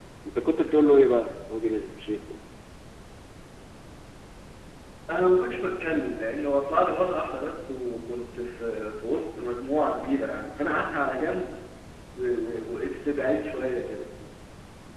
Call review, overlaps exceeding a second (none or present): none